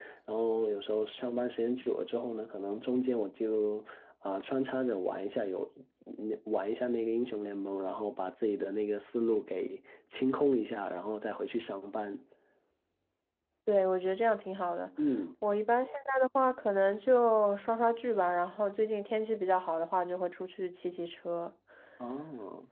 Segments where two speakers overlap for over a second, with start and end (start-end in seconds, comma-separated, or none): none